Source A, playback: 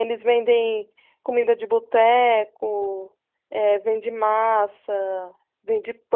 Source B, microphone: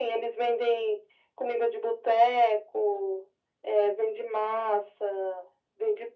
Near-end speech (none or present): none